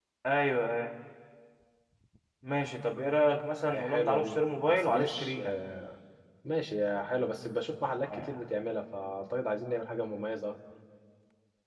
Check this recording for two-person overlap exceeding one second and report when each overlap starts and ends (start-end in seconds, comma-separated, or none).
3.7-5.5